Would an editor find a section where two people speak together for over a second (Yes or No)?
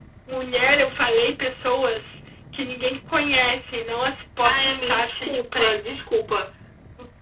Yes